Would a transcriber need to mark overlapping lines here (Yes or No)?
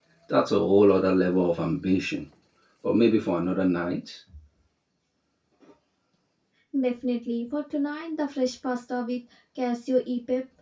No